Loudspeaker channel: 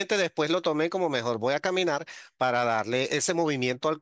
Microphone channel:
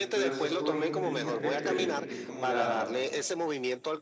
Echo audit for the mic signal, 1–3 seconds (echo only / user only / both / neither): both